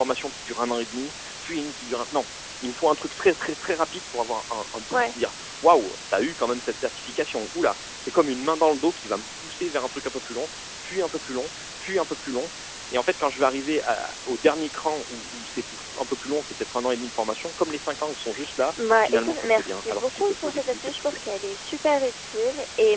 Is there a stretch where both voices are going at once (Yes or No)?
Yes